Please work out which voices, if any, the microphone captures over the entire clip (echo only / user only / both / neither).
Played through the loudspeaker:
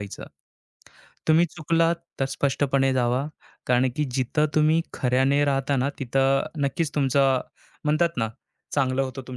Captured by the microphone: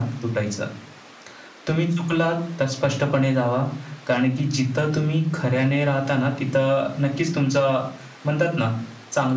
echo only